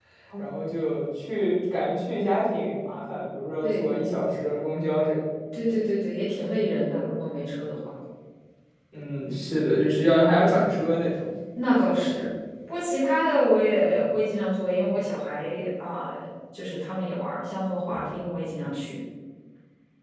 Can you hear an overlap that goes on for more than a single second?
No

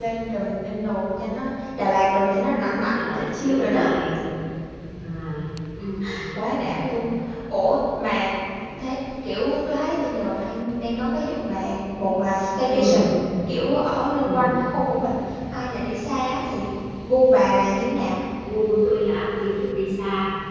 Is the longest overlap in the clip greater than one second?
Yes, from 2.5 s

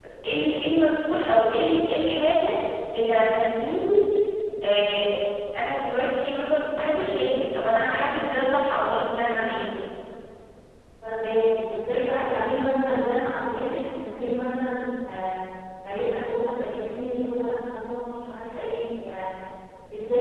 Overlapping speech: No

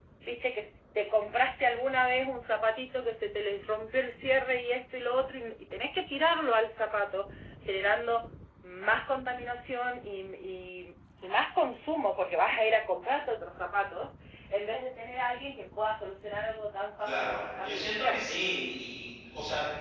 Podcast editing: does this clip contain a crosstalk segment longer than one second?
Yes, from 17.0 s

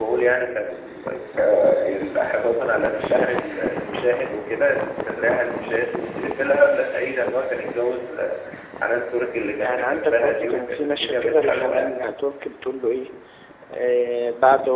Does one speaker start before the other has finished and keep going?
Yes, from 9.6 s

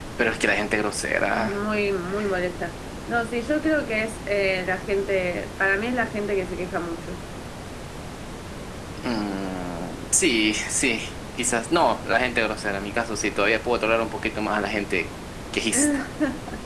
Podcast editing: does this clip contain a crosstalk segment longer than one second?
No

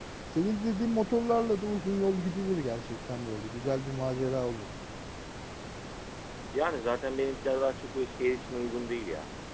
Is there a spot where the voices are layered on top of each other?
No

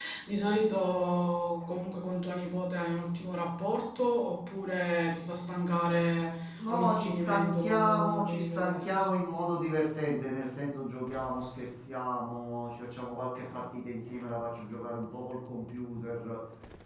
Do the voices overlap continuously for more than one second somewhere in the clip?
Yes, from 6.7 s

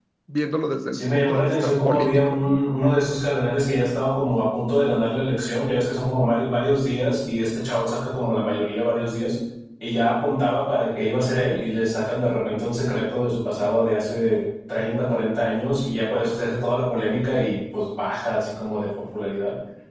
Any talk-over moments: Yes, from 0.9 s

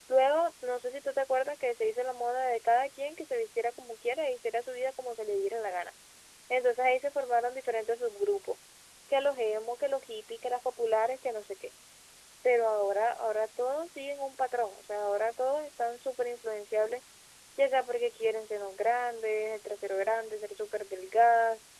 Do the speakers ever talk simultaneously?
No

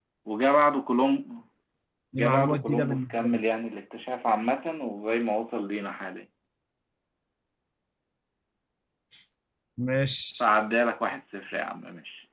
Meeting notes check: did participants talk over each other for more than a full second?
Yes, from 2.1 s

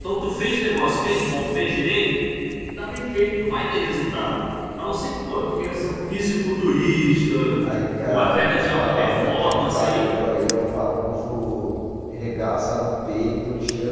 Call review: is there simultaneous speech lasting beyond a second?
Yes, from 8.0 s

